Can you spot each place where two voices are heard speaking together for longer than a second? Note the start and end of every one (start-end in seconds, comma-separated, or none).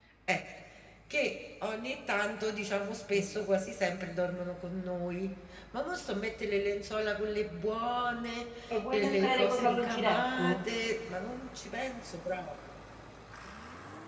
8.9-10.6